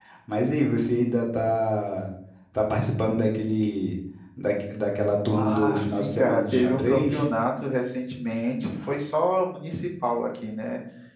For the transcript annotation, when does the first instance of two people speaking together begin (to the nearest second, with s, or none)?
5 s